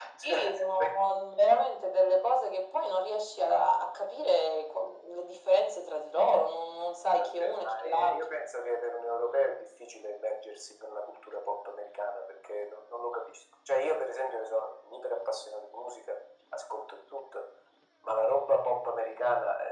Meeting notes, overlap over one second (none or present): present